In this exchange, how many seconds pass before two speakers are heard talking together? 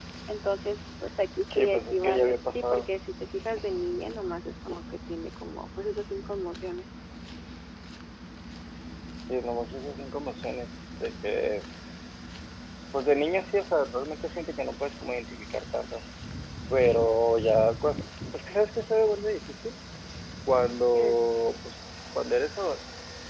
1.5 s

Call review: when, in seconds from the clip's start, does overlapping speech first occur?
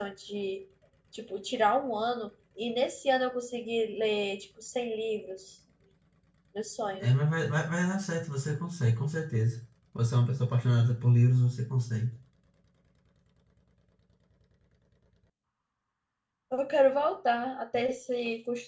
none

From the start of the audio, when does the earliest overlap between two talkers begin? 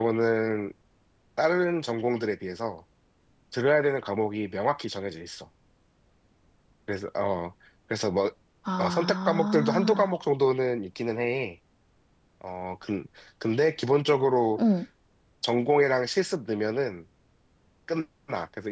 8.8 s

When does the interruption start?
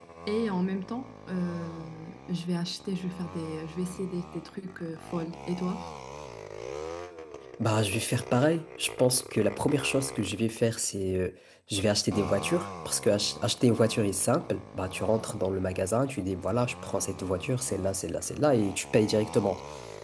none

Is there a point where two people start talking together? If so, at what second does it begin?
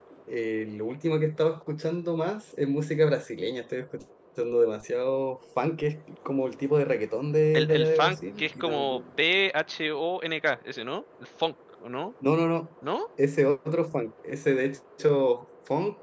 7.5 s

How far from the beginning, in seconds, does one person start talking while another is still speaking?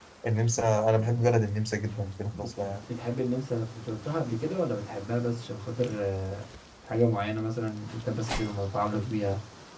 none

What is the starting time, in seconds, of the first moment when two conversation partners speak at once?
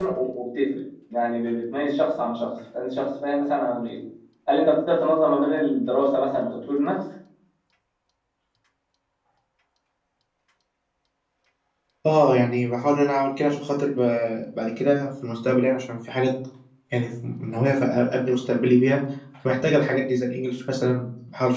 none

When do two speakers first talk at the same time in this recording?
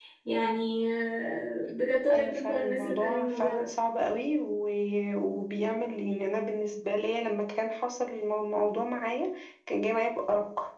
2.1 s

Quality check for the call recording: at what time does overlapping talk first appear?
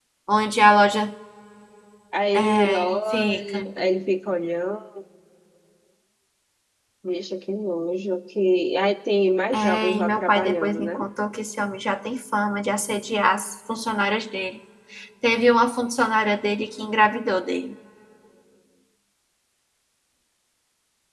2.3 s

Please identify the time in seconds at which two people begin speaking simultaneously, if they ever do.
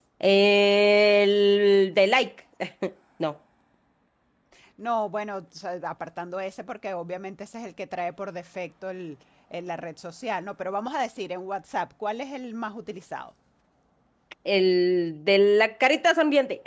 none

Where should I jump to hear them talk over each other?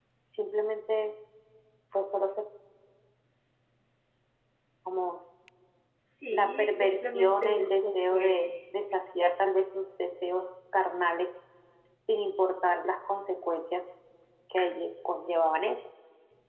6.3 s

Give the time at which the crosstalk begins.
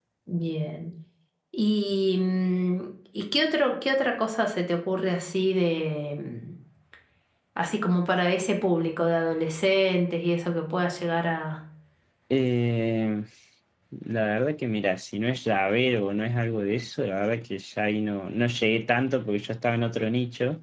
none

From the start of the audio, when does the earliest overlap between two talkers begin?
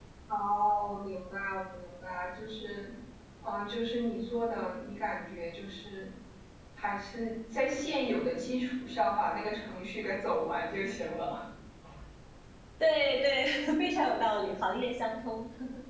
none

